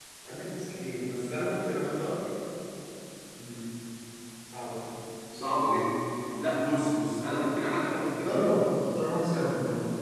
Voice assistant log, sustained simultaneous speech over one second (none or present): none